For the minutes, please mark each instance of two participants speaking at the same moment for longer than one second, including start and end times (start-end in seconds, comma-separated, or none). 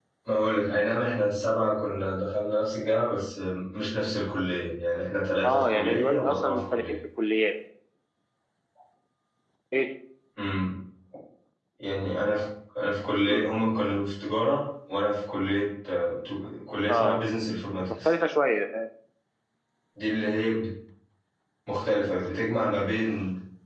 5.4-6.8